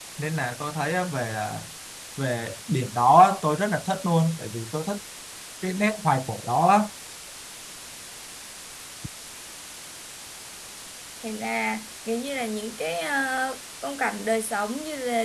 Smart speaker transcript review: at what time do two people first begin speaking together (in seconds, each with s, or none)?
none